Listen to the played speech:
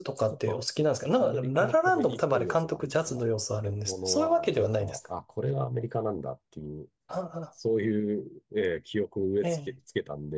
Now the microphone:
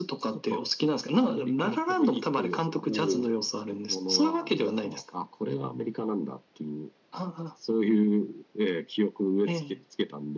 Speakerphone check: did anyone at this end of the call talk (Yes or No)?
Yes